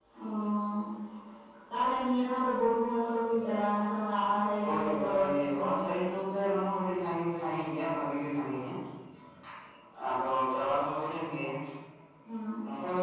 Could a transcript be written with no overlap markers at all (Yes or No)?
No